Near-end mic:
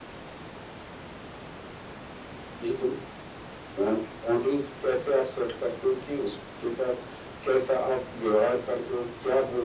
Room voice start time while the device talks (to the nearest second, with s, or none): none